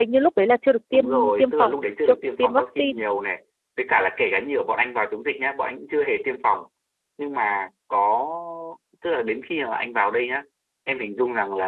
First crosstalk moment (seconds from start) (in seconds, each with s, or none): 0.9 s